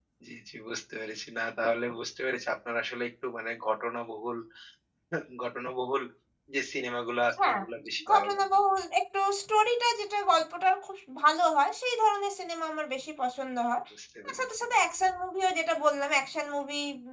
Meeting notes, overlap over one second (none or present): none